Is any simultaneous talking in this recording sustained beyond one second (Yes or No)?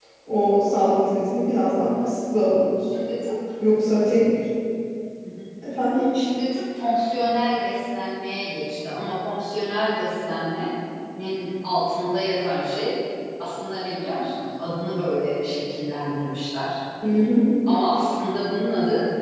No